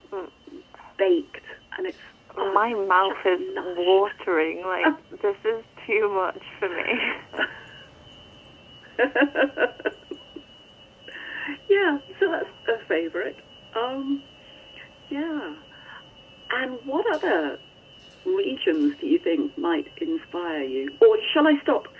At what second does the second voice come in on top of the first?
2.4 s

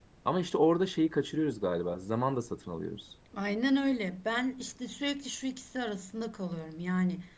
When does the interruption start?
none

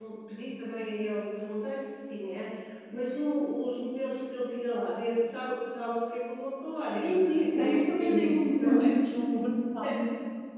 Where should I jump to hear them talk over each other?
7.0 s

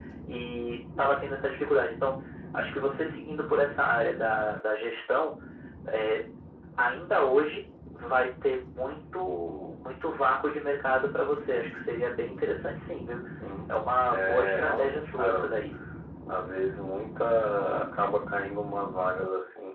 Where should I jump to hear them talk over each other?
14.1 s

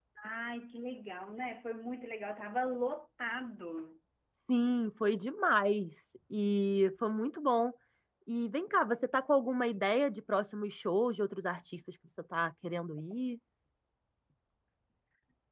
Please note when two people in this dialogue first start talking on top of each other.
none

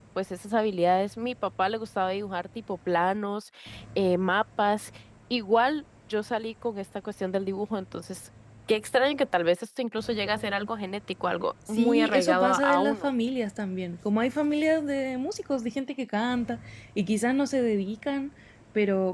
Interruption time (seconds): 11.7 s

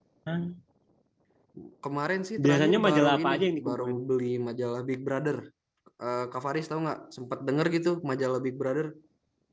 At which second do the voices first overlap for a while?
2.4 s

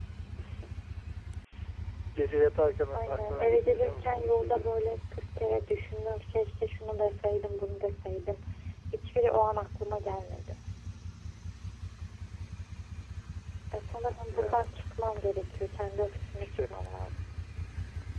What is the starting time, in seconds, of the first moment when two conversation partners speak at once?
2.9 s

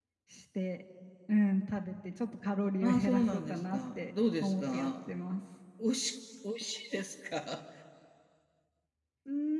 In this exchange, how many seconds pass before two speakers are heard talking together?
2.8 s

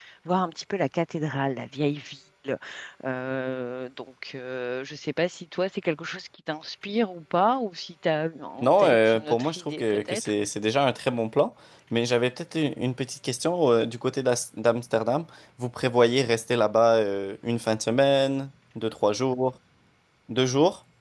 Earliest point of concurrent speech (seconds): 8.6 s

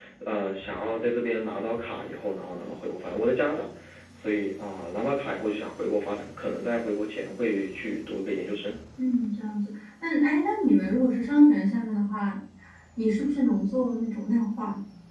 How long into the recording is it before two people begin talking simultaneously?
none

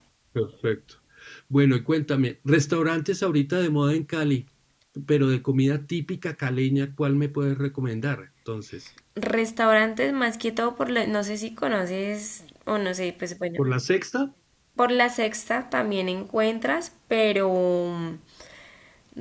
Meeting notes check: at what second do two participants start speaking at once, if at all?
none

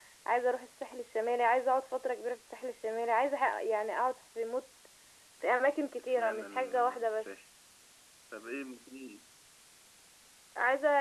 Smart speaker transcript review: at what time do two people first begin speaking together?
6.0 s

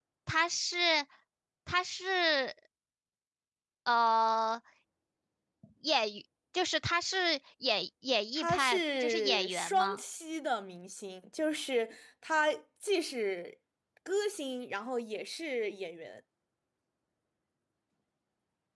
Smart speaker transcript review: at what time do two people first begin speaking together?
8.4 s

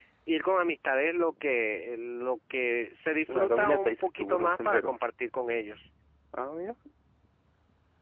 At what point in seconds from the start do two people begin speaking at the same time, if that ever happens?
3.3 s

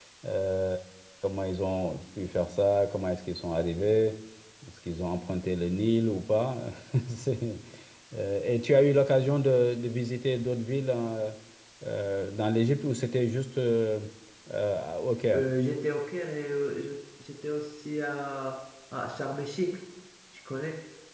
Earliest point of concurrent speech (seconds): none

